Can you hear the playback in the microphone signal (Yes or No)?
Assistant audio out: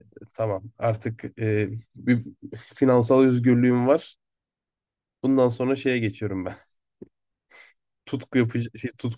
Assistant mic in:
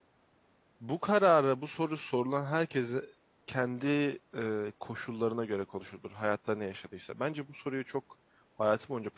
No